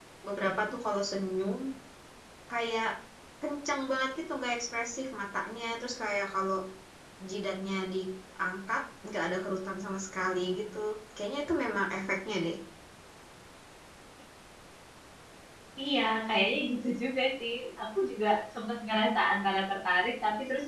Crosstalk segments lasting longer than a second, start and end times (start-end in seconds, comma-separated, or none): none